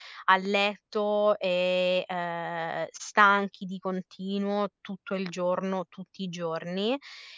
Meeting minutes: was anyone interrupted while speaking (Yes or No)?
No